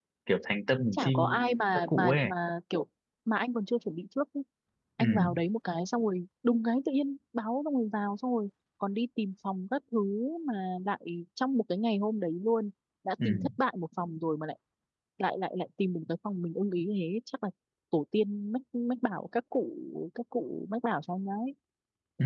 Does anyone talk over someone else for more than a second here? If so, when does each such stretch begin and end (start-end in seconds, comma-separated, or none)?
0.9-2.3